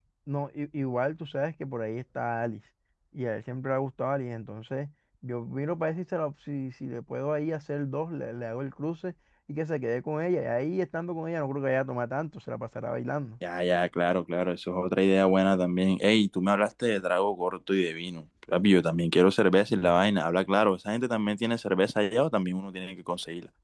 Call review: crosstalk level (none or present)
none